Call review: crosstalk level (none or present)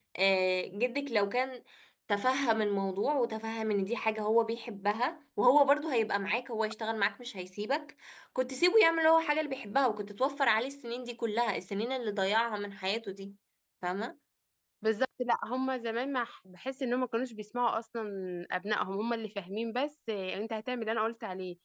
none